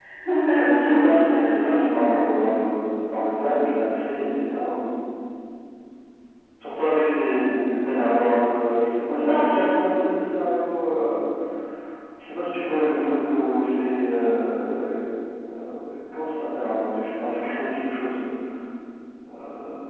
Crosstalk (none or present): present